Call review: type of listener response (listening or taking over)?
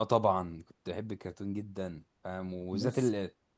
listening